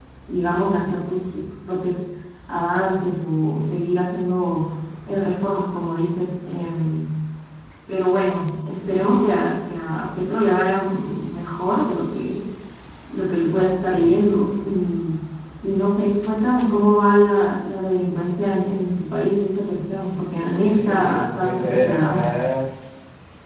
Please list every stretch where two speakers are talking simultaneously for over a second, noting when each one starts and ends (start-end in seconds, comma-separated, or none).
20.7-22.3